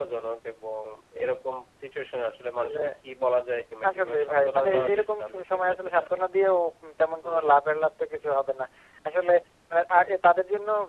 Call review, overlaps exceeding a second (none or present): present